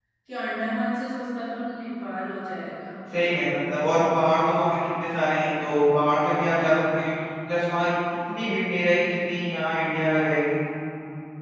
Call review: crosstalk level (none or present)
none